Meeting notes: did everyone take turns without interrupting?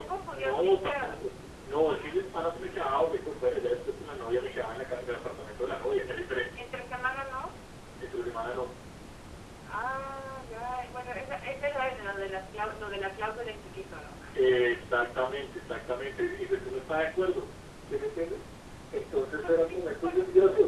No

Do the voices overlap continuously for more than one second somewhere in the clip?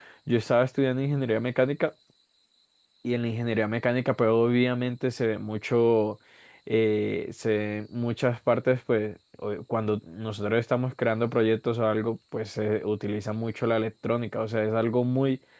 No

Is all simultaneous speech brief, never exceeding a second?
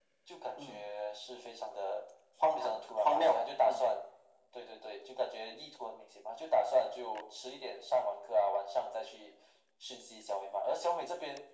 No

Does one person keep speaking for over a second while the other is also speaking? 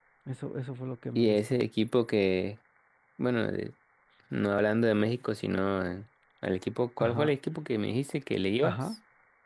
No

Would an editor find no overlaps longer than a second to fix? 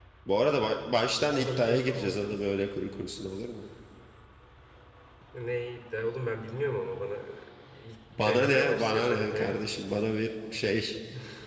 No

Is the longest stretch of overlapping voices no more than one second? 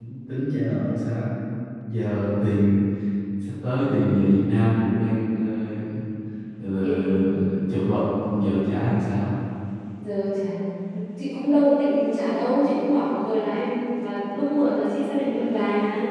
Yes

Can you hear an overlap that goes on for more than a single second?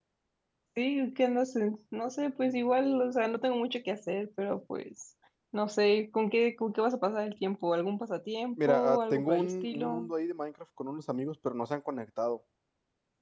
Yes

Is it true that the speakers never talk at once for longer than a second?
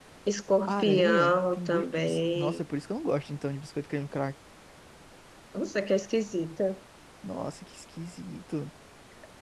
No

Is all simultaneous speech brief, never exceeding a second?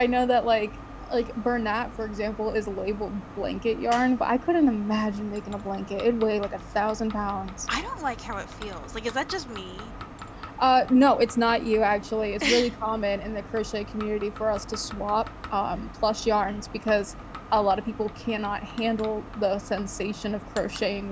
Yes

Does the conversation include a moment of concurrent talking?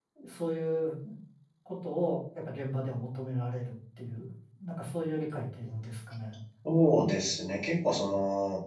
No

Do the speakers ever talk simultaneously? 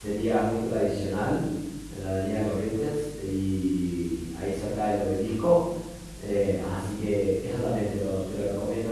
No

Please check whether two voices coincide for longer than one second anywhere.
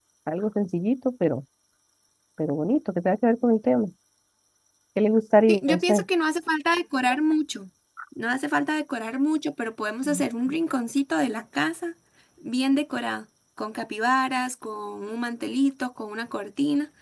No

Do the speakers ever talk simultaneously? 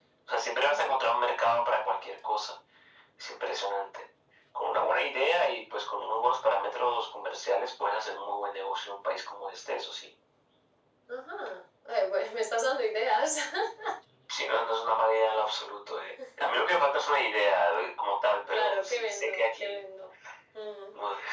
Yes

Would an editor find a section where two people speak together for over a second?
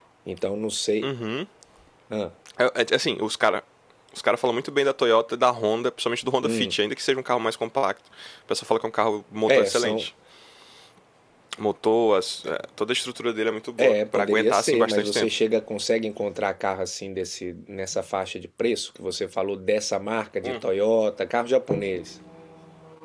Yes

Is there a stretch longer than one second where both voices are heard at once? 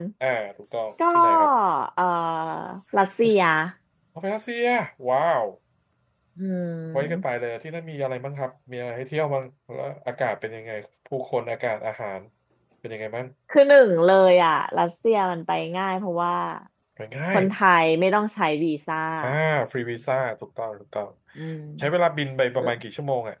No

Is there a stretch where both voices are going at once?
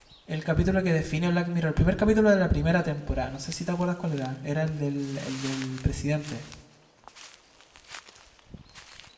No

